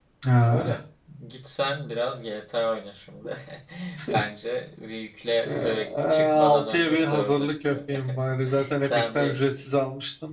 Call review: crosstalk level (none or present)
present